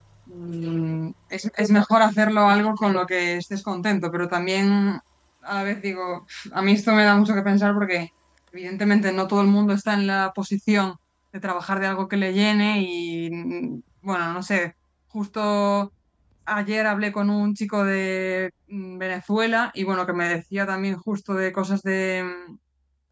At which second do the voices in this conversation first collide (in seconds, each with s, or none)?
none